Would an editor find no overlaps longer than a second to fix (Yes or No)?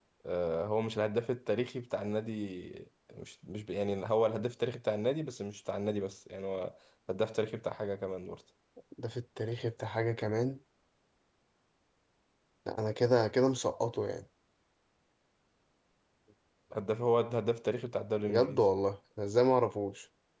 Yes